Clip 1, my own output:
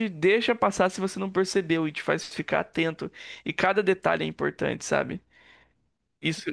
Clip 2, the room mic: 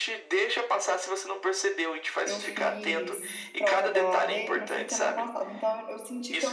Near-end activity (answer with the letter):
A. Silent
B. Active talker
B